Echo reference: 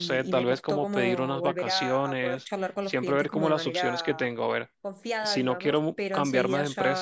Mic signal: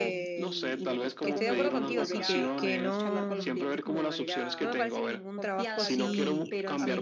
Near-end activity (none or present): present